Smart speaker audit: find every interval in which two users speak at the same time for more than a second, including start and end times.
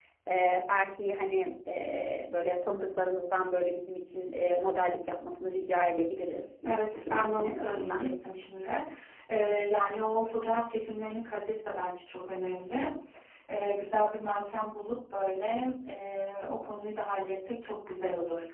6.7-8.1

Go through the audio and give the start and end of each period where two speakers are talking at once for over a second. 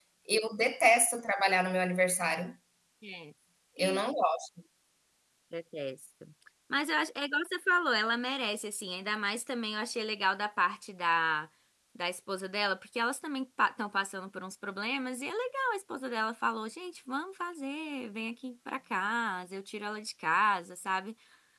none

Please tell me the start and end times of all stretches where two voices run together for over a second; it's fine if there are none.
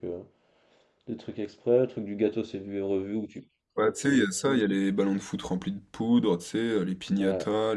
none

